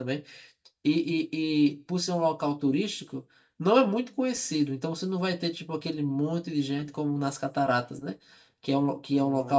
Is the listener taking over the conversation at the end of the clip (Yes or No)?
No